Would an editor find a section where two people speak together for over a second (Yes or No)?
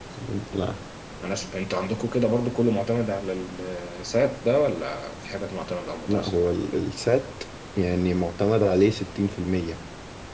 No